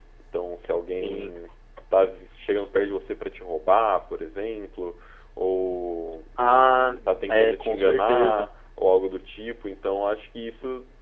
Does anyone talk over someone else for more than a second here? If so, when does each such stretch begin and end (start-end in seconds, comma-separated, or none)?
6.7-8.5